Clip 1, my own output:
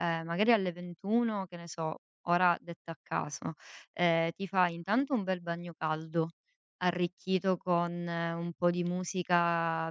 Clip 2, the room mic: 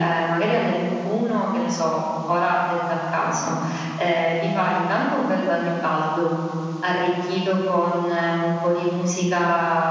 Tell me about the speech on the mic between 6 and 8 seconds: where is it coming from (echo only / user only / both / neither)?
echo only